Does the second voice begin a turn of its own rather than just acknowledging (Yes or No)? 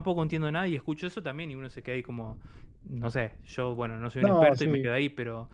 No